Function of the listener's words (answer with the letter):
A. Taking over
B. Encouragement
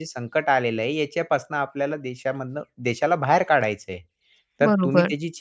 B